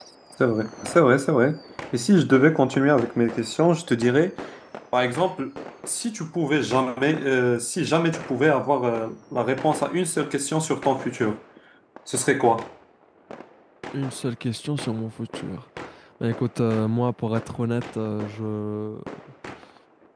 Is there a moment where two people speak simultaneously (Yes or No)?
No